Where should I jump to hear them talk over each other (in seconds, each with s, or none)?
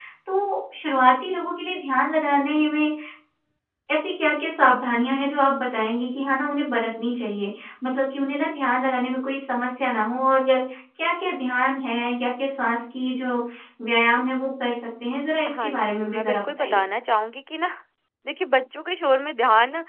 15.4 s